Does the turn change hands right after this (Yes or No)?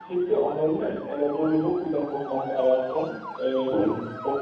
No